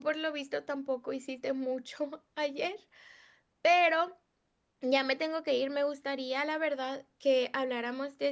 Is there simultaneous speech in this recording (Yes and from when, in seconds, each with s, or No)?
No